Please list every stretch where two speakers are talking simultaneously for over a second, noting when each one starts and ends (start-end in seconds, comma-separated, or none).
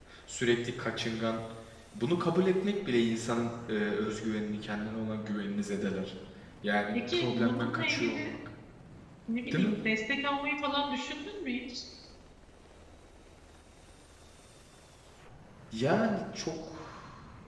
6.9-8.4